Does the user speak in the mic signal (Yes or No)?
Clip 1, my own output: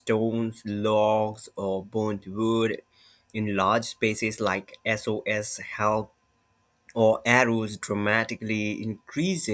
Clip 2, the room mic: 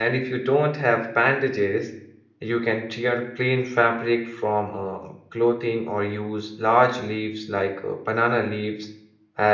Yes